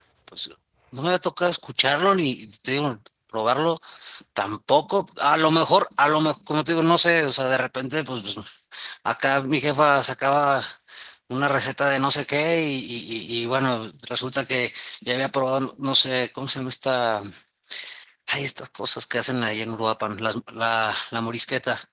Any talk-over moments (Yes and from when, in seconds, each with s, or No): No